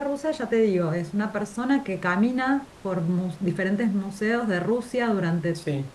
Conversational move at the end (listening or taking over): listening